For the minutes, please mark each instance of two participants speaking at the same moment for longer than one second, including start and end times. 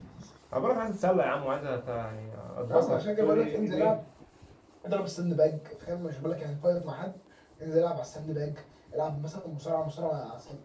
2.7-4.0

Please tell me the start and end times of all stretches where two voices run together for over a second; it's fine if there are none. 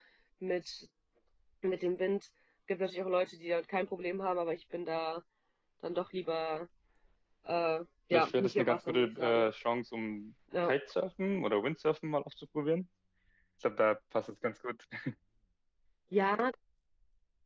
8.1-9.5

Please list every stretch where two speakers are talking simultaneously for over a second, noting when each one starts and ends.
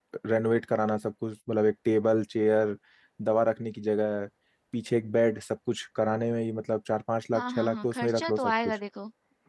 7.3-8.8

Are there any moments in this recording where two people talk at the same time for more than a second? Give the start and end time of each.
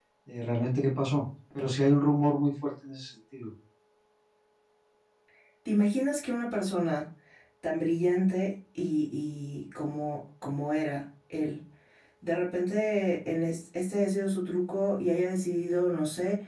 none

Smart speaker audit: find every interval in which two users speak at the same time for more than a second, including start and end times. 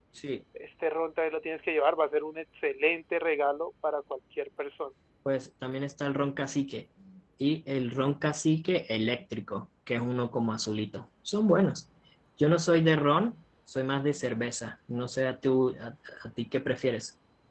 none

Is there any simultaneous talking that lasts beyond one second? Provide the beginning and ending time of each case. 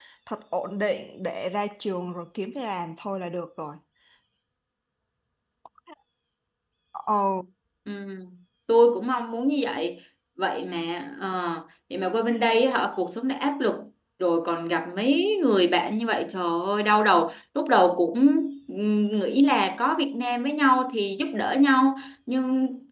none

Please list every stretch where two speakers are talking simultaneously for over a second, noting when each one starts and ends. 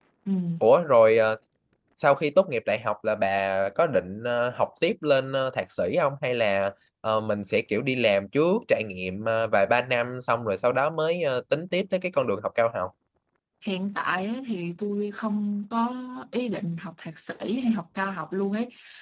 none

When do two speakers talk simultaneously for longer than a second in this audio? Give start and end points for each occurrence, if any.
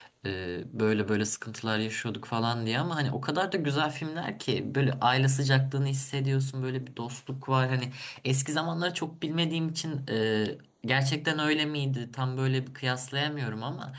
none

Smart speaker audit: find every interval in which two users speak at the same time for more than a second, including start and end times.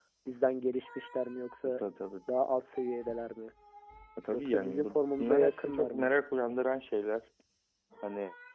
4.3-6.1

